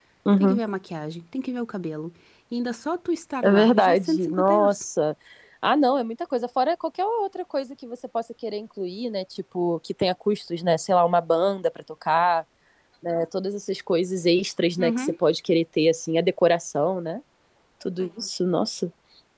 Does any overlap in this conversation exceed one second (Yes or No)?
Yes